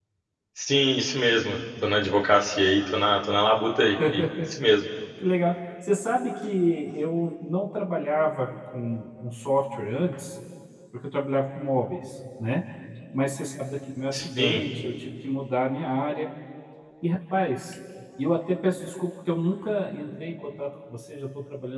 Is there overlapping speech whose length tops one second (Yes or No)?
No